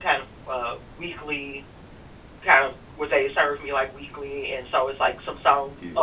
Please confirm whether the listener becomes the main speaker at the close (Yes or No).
No